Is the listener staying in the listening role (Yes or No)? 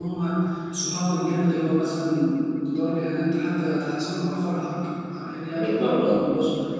Yes